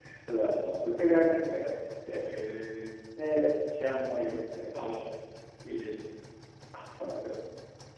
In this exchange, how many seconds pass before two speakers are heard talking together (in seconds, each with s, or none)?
none